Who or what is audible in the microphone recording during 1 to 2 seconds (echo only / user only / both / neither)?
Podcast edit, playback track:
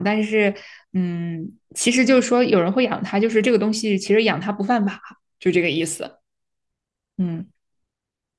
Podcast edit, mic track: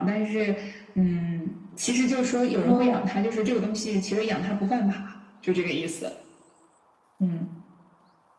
echo only